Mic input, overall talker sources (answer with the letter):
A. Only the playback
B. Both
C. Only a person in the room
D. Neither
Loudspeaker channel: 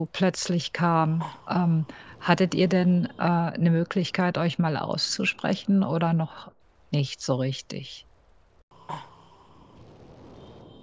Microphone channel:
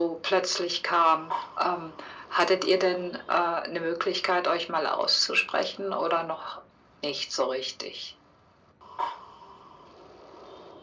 A